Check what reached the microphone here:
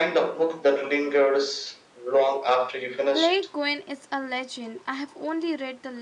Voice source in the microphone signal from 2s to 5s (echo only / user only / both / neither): both